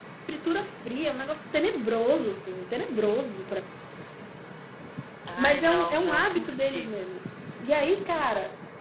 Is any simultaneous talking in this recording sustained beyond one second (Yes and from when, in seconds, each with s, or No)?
Yes, from 5.4 s